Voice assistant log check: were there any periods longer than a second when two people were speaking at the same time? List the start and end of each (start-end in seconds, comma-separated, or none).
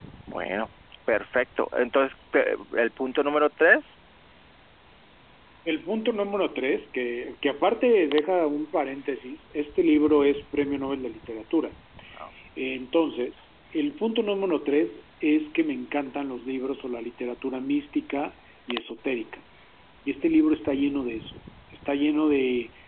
none